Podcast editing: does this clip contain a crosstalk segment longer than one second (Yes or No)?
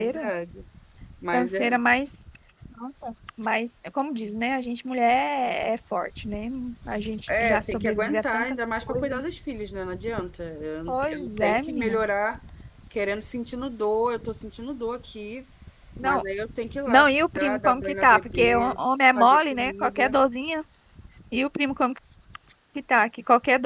Yes